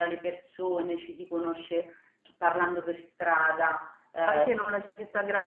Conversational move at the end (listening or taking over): taking over